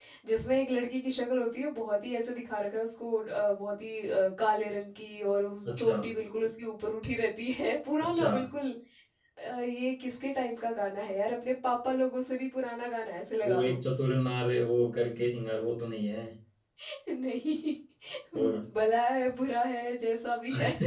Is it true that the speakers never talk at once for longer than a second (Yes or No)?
Yes